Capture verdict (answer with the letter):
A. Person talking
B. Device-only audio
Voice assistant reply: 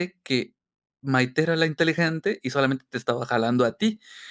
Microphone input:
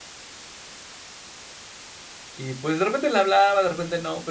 A